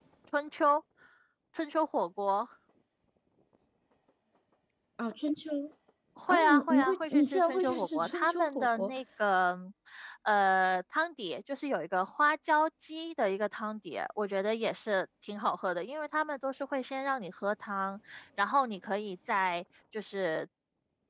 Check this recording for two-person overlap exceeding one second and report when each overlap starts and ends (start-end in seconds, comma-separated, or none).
6.3-8.9